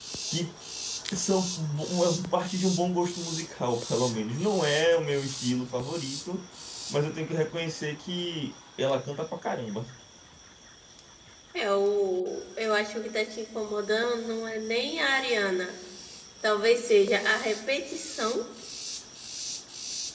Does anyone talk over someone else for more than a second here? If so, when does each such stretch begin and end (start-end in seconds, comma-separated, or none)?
none